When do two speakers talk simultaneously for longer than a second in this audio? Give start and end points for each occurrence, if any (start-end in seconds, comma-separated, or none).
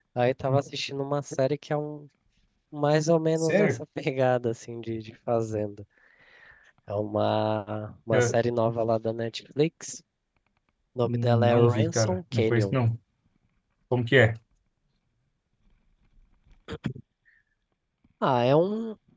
11.0-12.8